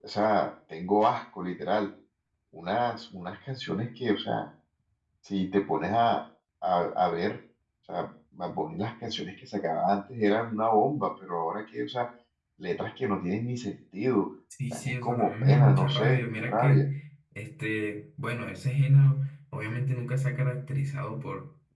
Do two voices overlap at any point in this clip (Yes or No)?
Yes